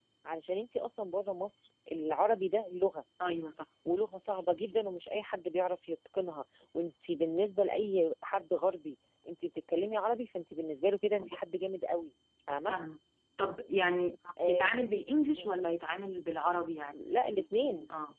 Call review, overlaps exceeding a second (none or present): none